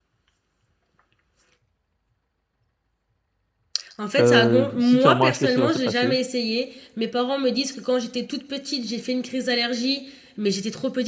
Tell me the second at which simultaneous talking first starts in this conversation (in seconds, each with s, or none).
4.2 s